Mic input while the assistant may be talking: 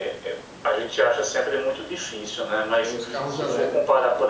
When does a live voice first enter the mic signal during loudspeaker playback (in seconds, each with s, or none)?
2.7 s